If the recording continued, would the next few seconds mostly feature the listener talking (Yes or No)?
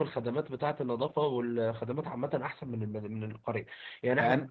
No